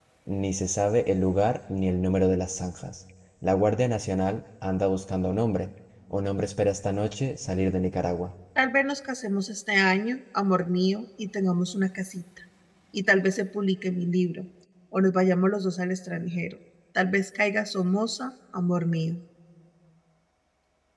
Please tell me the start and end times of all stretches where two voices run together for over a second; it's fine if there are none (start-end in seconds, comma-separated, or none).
none